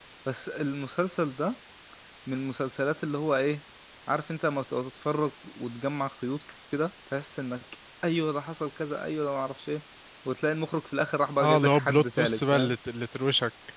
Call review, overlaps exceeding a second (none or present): present